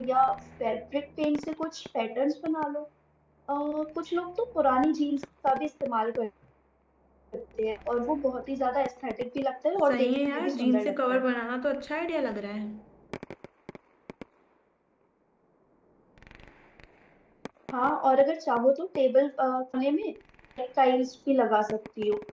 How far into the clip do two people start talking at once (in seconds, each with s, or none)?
9.9 s